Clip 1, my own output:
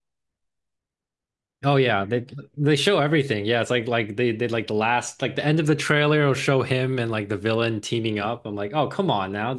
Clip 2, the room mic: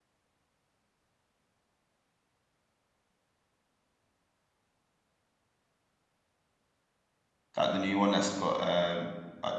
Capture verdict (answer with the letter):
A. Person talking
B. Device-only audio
A